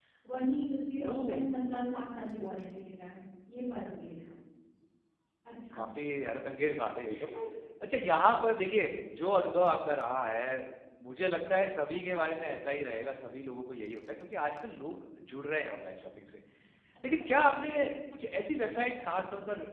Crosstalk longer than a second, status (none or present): none